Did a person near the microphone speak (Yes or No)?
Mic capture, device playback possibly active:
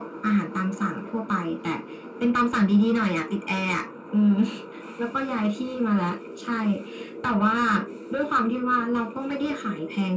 No